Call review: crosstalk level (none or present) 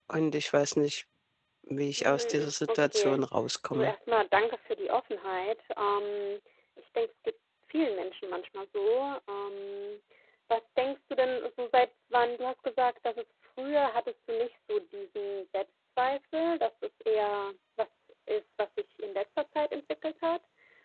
present